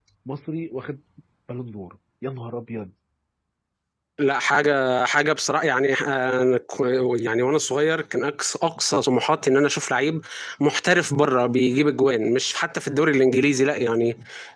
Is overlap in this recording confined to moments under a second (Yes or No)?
Yes